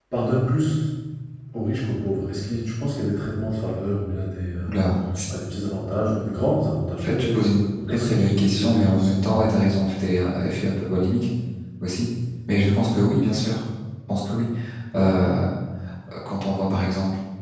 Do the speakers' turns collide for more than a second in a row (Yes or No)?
Yes